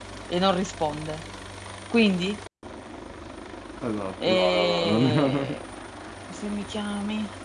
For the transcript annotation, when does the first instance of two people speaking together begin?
4 s

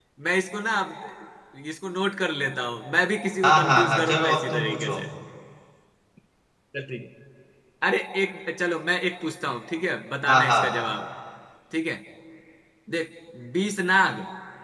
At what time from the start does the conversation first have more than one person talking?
3 s

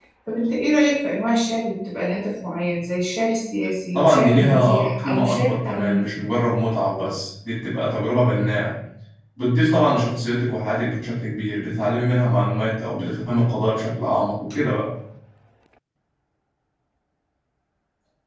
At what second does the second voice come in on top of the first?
4 s

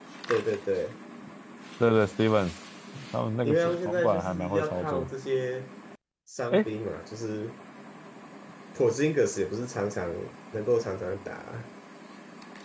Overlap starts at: 3 s

